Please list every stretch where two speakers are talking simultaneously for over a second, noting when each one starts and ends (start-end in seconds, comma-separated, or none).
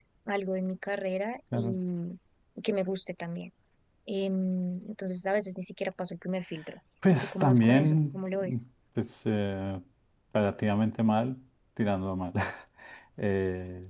7.1-8.6